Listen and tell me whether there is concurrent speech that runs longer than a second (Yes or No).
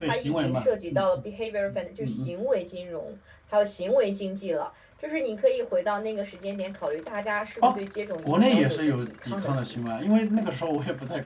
Yes